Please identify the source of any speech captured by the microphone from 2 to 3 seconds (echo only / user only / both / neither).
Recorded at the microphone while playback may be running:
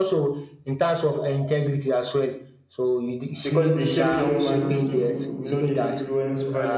echo only